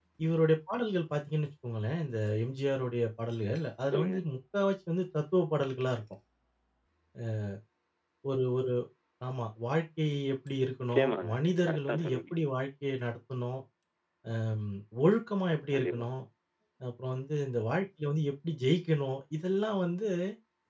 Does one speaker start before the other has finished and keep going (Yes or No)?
Yes